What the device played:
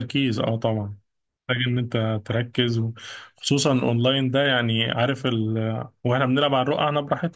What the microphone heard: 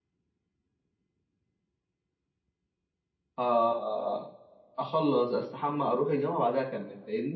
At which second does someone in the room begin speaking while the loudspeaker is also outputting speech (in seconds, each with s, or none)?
3.4 s